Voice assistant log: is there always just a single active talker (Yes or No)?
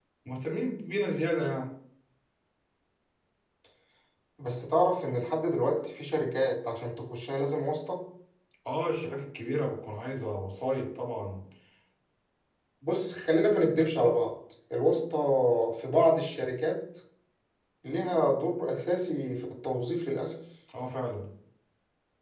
Yes